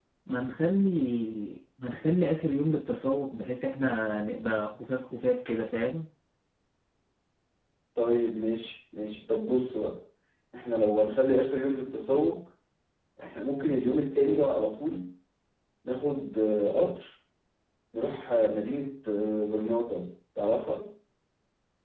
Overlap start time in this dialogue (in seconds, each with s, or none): none